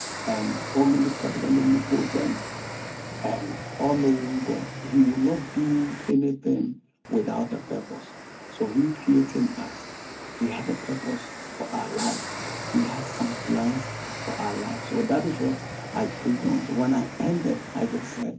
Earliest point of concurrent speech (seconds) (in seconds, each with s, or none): none